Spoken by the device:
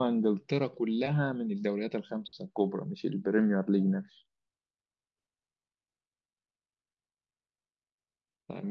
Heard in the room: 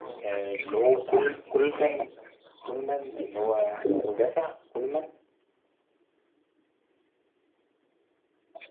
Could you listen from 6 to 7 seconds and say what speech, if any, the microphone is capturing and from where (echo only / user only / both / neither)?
neither